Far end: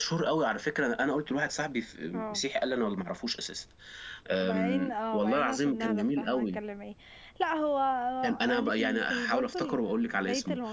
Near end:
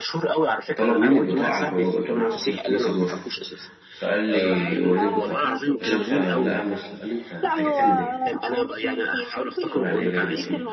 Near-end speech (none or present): present